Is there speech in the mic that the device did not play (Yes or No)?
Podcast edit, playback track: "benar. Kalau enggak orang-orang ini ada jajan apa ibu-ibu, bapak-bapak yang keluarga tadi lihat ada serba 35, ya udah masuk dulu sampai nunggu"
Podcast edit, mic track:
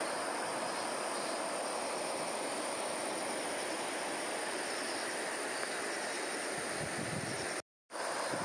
No